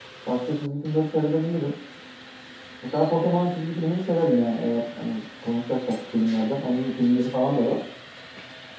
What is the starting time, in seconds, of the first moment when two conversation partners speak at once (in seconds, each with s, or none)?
none